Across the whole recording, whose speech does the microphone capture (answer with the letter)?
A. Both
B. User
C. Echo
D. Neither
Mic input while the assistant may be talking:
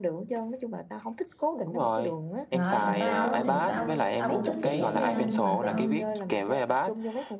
A